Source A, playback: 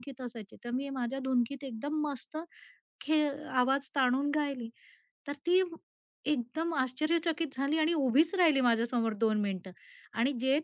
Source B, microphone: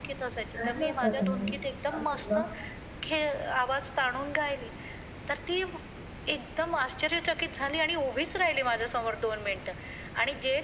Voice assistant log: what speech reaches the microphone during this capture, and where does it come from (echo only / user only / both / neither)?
both